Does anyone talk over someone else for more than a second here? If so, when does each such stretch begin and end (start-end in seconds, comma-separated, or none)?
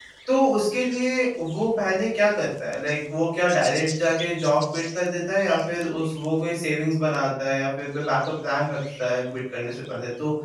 none